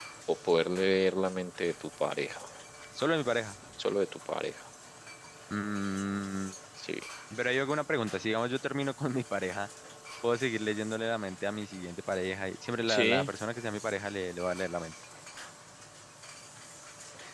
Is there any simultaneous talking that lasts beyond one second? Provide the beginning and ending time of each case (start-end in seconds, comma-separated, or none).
none